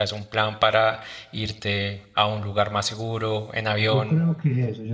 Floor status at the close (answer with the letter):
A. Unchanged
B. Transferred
B